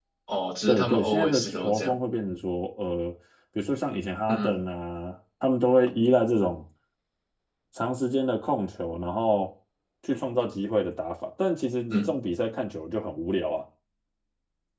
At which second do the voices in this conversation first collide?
0.7 s

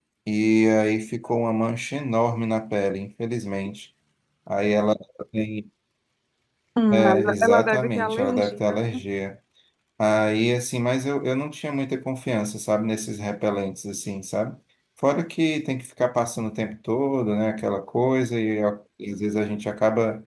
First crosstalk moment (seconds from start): 6.9 s

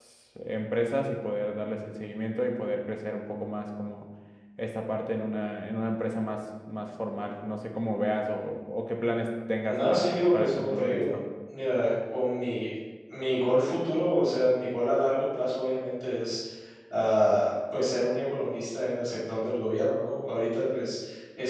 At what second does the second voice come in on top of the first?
9.7 s

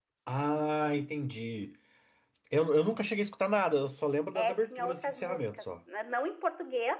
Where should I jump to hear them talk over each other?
4.3 s

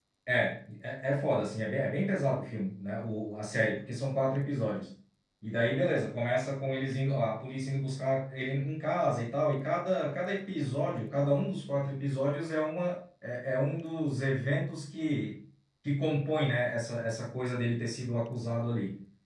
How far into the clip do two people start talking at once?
none

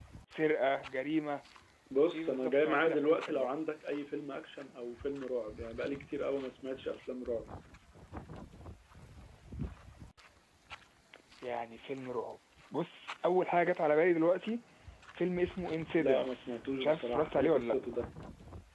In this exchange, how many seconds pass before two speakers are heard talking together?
2.1 s

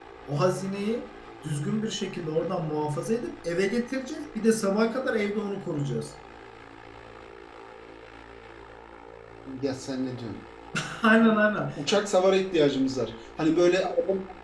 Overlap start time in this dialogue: none

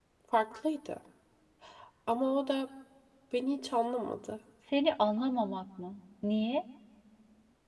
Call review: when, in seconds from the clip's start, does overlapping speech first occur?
none

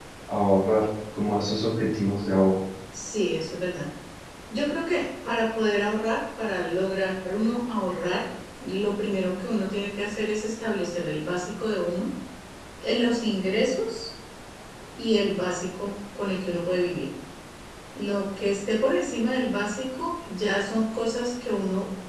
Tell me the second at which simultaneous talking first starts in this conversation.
none

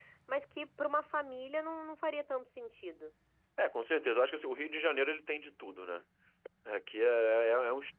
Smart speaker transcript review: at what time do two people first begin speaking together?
none

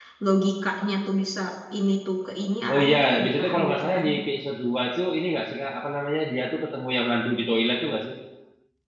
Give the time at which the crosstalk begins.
2.7 s

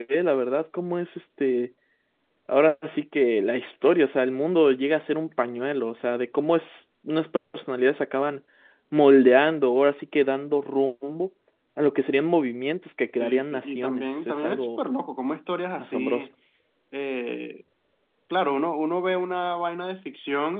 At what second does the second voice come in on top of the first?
13.2 s

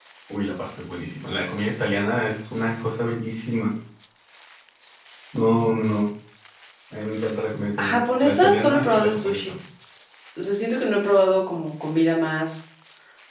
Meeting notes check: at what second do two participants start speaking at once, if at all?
7.8 s

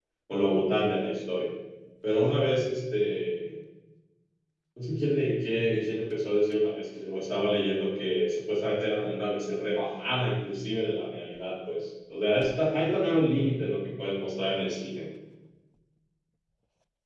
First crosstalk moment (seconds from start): none

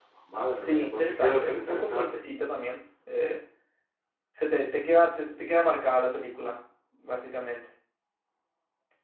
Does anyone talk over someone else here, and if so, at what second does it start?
0.6 s

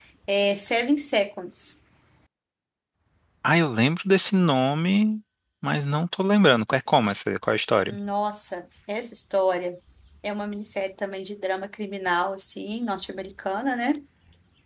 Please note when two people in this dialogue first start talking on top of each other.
none

